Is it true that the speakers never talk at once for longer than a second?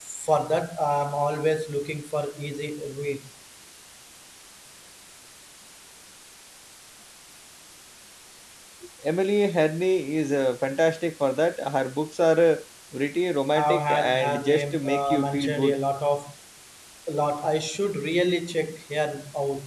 No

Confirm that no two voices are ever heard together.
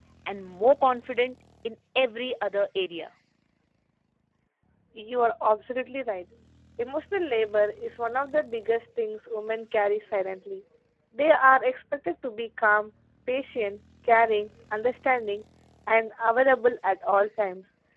Yes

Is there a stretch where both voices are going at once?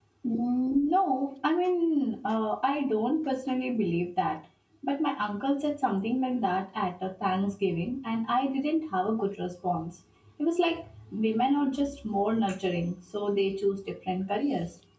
No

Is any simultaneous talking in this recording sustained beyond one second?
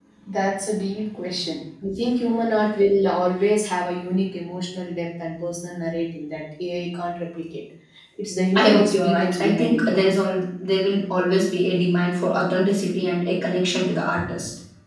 Yes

